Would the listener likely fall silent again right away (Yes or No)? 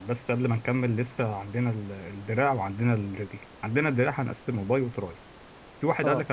Yes